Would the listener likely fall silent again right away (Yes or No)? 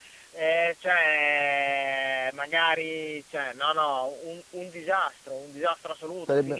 Yes